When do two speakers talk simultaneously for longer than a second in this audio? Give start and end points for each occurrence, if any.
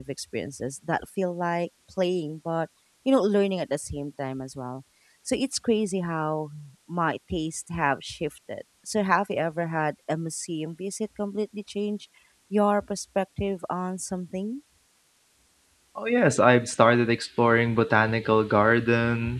none

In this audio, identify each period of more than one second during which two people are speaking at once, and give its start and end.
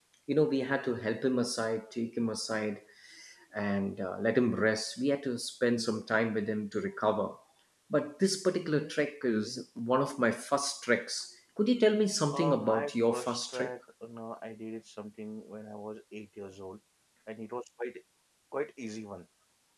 12.3-13.7

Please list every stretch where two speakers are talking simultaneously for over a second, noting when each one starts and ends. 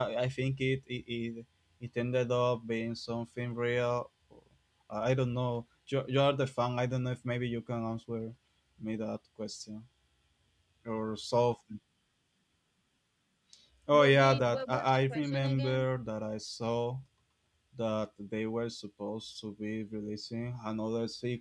13.9-15.9

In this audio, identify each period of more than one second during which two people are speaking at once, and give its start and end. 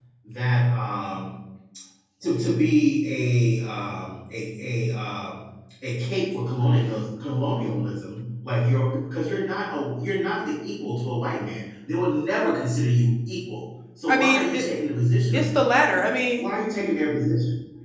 none

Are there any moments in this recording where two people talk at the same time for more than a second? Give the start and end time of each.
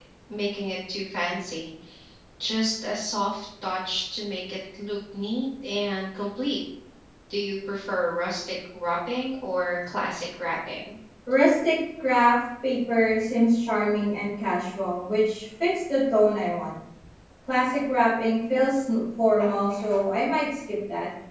none

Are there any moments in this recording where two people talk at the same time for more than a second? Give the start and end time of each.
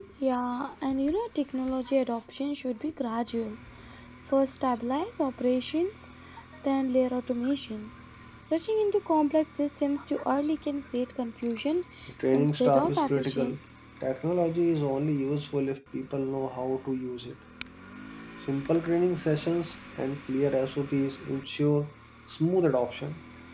12.3-13.6

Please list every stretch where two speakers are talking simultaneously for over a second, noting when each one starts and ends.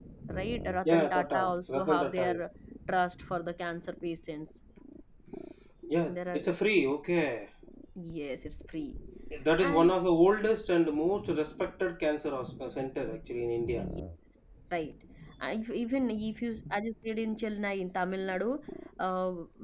0.8-2.3

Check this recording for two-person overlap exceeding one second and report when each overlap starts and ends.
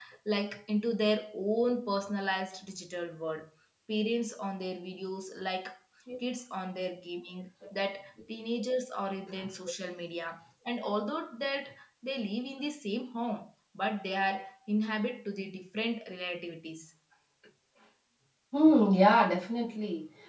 none

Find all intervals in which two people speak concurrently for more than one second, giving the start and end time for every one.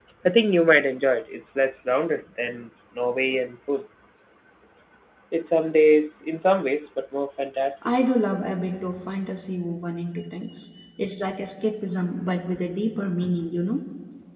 none

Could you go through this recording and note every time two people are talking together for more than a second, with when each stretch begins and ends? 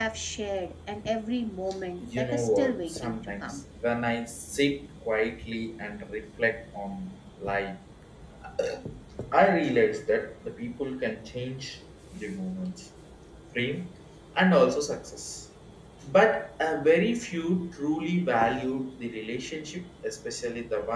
2.0-3.6

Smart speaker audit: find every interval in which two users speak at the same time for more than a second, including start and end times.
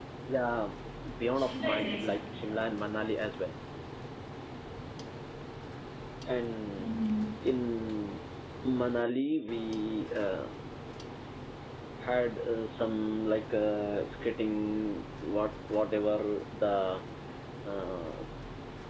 1.4-2.6

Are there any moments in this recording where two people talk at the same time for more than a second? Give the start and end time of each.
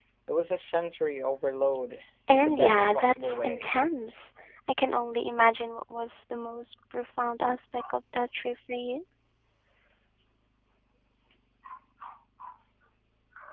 2.3-3.7

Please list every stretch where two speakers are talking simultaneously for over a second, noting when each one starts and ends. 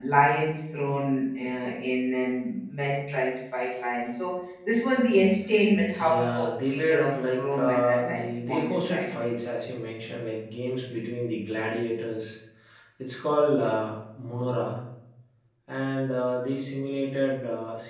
6.0-9.1

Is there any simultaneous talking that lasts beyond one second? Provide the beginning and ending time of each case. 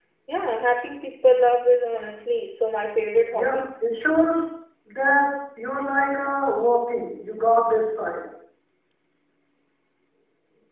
none

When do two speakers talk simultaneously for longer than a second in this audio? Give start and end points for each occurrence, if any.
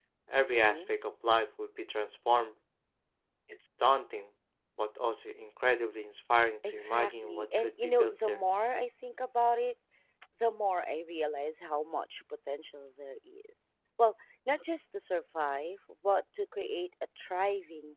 6.6-8.4

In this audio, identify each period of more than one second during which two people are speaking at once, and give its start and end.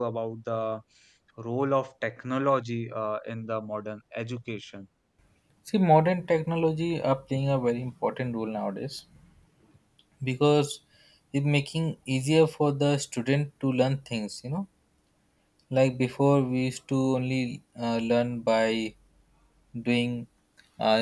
none

